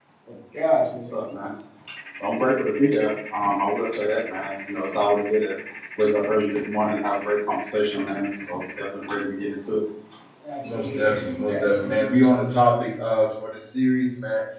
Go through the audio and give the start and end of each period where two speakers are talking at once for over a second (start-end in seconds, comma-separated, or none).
10.6-12.2